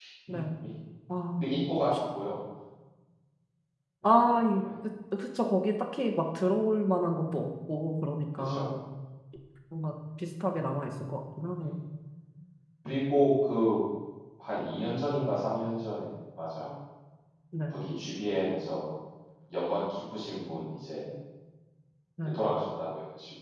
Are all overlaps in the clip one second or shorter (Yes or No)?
Yes